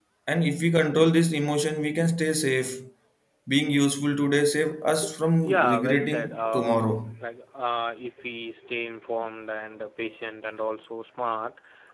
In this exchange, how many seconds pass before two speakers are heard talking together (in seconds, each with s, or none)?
5.4 s